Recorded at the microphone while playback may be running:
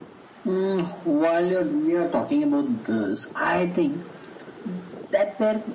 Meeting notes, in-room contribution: none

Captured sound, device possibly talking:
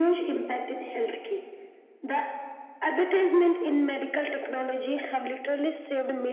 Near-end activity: none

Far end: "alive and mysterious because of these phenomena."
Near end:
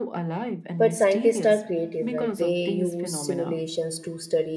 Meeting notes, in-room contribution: present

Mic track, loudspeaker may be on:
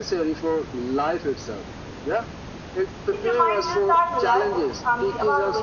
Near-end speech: present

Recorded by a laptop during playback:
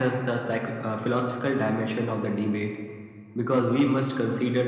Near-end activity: none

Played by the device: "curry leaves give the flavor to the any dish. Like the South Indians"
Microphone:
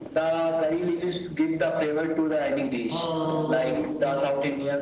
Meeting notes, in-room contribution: present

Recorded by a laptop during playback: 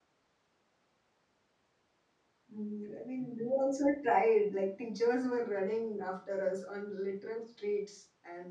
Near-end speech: present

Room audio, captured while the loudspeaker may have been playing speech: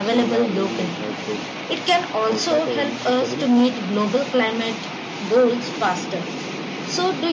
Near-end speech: none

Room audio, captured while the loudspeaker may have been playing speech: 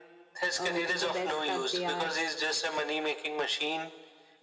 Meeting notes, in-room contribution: present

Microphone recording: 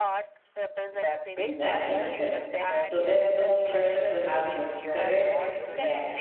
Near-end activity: present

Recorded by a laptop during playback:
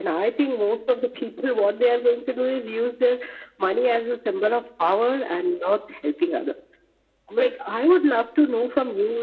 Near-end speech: none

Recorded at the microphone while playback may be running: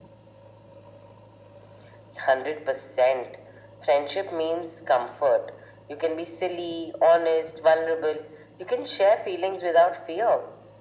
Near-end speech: none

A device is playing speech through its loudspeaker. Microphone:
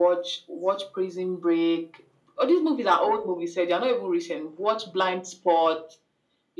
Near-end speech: none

